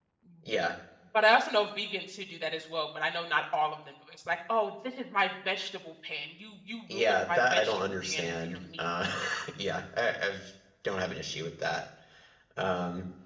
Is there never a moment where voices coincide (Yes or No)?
No